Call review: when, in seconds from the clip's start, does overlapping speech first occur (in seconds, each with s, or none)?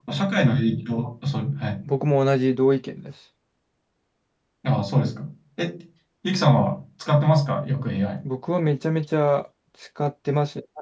none